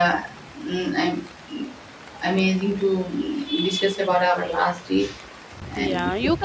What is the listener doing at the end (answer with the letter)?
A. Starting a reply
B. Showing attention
A